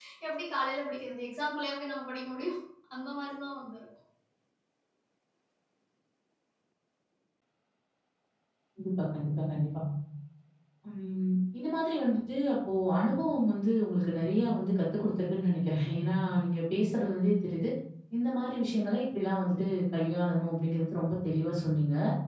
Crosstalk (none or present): none